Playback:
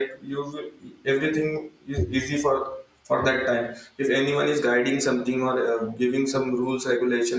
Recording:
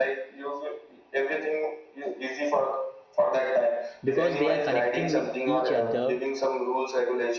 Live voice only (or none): because they are connecting with each other